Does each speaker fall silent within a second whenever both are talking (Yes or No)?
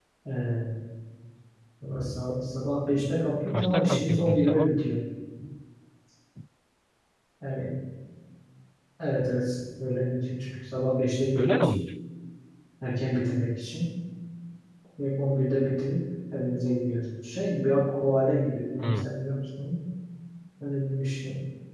No